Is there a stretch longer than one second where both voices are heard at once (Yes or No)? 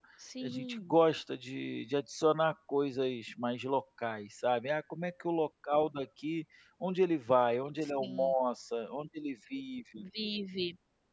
No